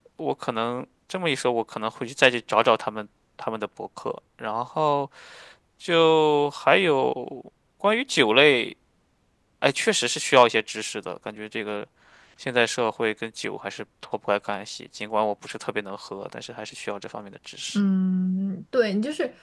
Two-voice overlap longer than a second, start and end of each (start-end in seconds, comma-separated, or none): none